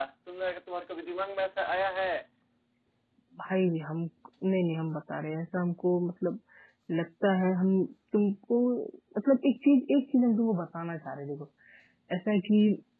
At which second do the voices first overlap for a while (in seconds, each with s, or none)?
none